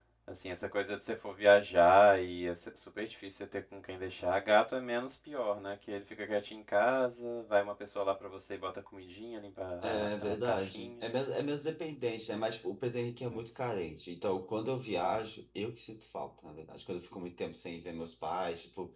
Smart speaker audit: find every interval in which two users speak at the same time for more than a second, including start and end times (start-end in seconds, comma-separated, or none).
9.8-11.0